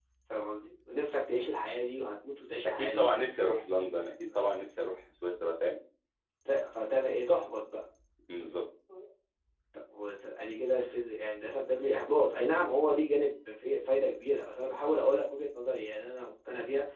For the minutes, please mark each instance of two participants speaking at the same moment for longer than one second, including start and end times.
none

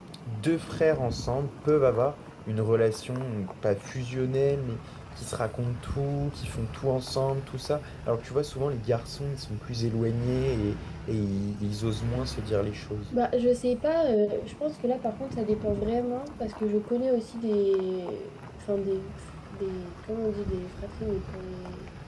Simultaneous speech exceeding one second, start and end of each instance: none

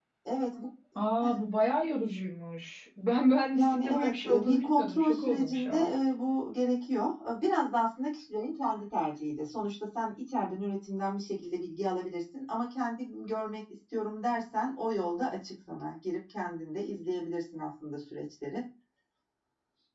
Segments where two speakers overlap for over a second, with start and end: 3.5-5.9

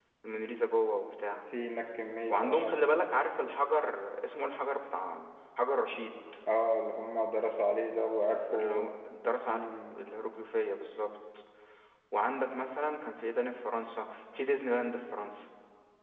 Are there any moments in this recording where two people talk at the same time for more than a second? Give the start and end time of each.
none

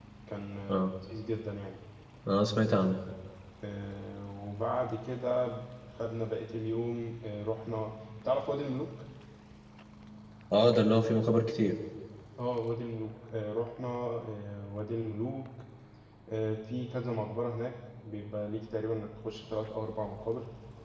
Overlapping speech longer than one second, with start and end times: none

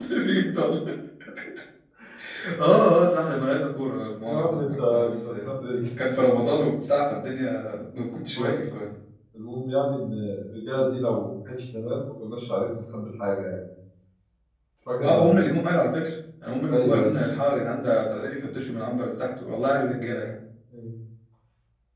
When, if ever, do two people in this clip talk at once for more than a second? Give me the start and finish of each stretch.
4.2-5.5

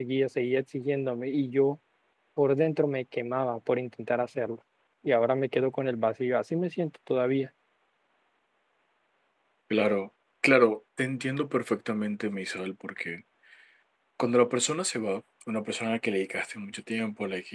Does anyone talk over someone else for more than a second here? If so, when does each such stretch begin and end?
none

